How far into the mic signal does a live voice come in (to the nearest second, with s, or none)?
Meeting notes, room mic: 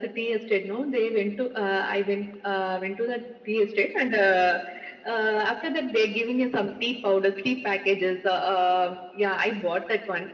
none